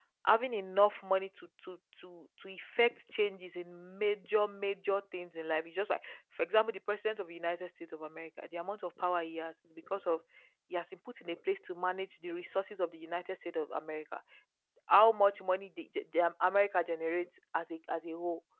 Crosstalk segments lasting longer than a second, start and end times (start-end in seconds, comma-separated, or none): none